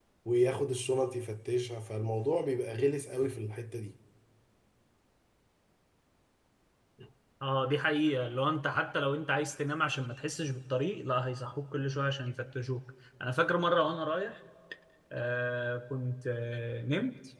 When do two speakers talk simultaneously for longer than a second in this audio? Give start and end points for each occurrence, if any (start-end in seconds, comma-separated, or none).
none